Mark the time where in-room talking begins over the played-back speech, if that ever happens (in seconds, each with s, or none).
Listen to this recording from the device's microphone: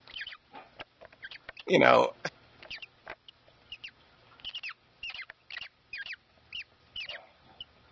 1.7 s